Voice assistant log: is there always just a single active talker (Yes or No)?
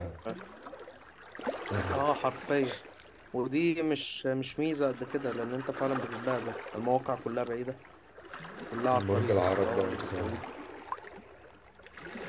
No